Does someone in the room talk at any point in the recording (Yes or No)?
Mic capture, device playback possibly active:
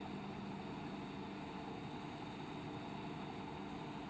No